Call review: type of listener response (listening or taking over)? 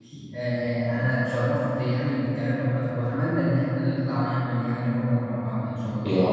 taking over